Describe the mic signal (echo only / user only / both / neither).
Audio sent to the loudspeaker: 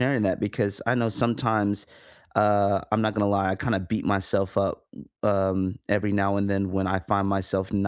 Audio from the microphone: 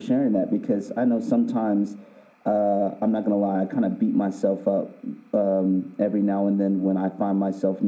echo only